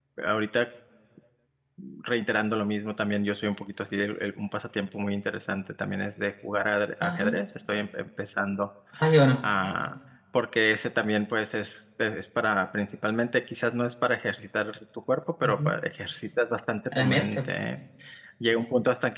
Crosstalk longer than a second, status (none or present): none